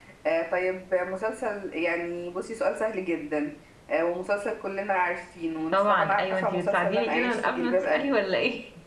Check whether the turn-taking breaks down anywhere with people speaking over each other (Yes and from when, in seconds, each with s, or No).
Yes, from 5.7 s